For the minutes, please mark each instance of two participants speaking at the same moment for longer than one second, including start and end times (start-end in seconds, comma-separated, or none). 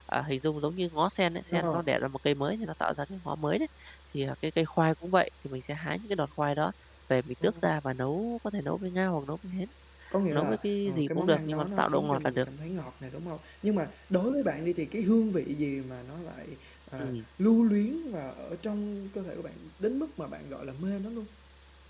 10.3-12.5